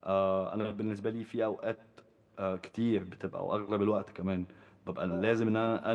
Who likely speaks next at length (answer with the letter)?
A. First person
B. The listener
A